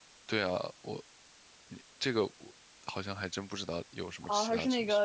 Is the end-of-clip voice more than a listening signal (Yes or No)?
Yes